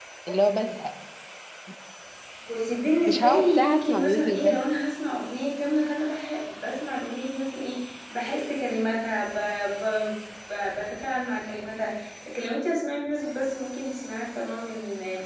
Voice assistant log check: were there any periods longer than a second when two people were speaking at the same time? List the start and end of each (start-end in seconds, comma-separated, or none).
3.1-4.6